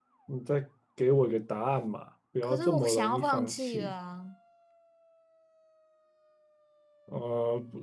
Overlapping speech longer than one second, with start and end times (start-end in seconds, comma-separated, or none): 2.4-3.9